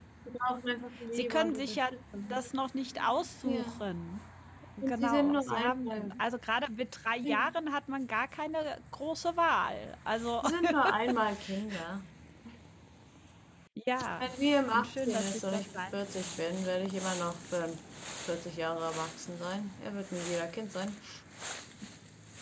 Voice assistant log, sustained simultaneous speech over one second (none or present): present